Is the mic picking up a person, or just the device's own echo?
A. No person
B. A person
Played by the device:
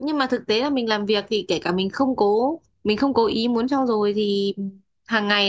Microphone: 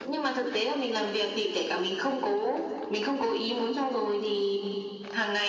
A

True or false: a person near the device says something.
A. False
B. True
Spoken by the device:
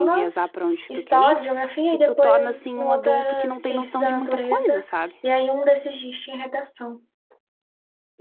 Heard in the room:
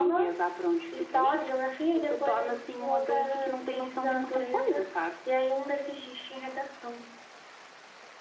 A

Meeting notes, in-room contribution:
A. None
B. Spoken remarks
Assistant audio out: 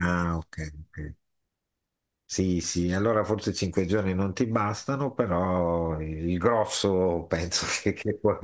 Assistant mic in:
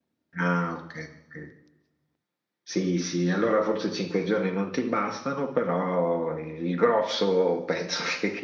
A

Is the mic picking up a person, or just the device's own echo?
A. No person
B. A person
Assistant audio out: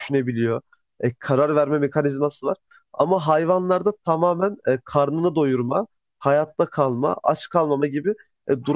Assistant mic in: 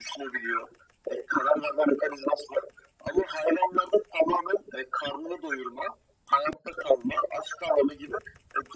A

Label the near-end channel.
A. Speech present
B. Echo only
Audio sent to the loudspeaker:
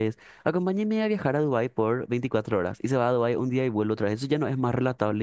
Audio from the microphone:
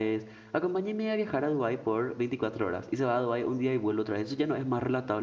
B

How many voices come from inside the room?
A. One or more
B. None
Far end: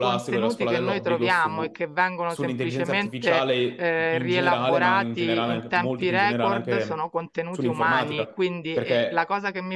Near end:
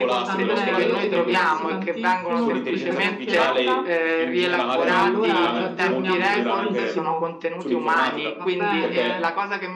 A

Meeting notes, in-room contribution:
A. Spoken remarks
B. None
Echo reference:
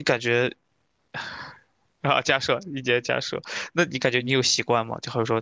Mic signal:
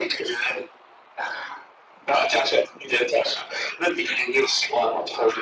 B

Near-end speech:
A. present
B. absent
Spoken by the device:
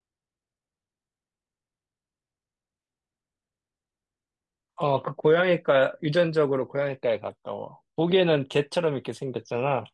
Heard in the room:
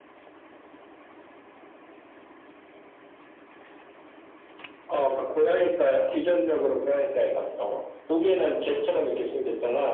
B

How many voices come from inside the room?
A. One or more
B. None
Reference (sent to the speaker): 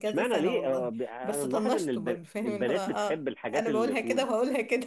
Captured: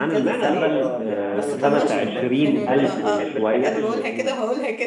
A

